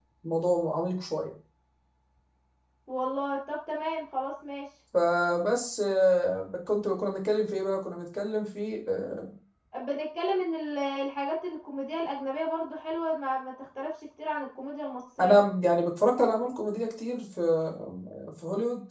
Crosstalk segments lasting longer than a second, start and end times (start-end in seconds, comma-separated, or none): none